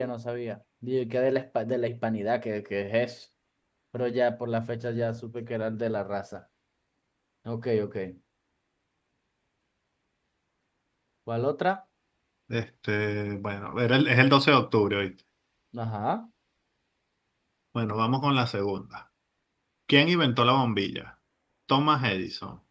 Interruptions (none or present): none